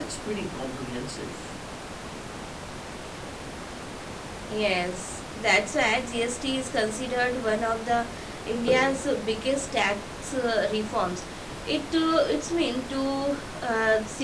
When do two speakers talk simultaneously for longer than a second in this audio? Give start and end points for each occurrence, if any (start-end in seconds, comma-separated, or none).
none